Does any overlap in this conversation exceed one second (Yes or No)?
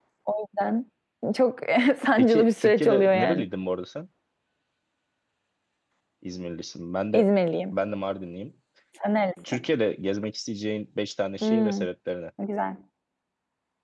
Yes